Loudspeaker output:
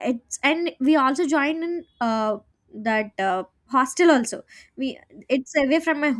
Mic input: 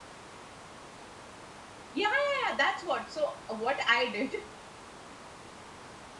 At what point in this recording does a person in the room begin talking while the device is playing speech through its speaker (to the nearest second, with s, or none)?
2 s